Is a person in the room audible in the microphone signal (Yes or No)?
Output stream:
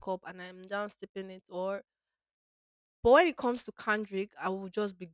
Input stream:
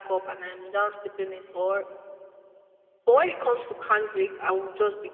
No